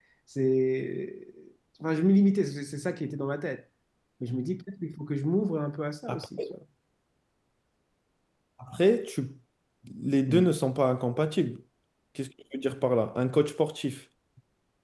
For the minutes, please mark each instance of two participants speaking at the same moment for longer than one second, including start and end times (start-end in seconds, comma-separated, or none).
none